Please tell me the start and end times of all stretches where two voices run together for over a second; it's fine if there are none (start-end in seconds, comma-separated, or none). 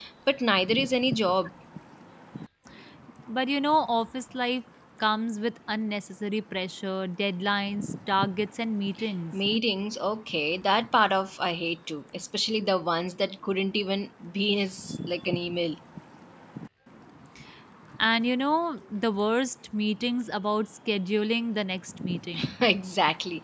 none